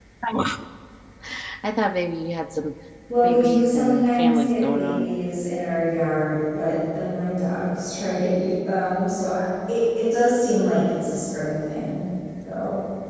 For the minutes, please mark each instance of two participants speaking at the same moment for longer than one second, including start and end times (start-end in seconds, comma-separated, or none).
3.2-5.1